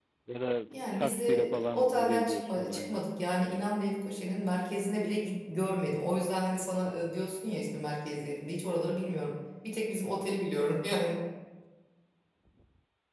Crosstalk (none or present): present